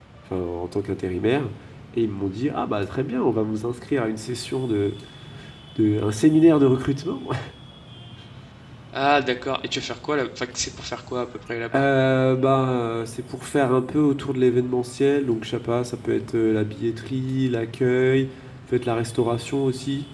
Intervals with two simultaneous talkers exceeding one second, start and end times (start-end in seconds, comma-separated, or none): none